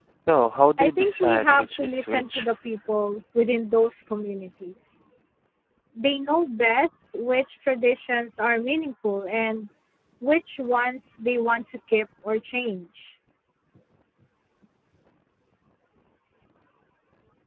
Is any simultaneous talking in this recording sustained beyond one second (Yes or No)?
Yes